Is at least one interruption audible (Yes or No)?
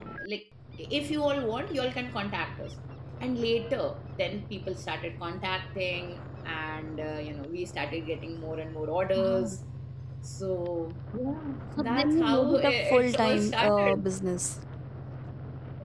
Yes